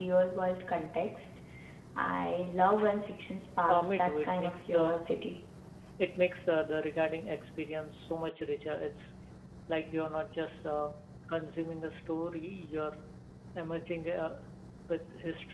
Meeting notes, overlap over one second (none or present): present